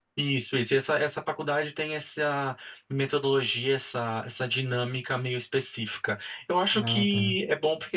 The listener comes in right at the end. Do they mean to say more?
No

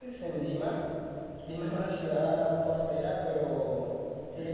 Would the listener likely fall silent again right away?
Yes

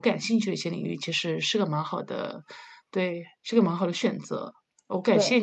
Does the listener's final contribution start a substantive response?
No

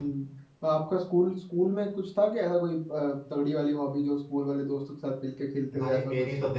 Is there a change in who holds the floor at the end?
Yes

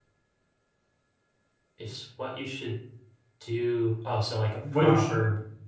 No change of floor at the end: No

